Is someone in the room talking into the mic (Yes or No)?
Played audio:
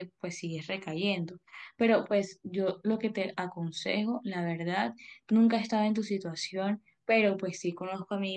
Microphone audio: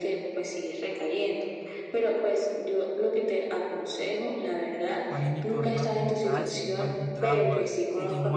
Yes